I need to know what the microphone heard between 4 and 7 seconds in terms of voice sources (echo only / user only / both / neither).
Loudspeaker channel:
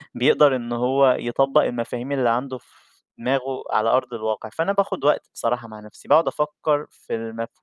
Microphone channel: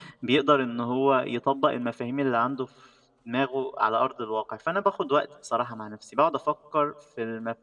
echo only